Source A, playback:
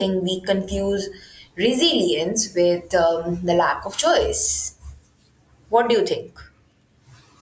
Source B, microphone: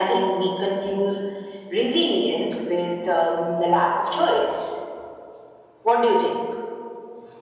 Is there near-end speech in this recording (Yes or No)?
No